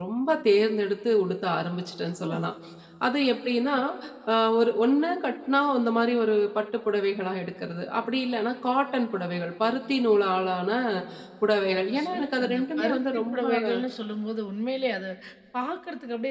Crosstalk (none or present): present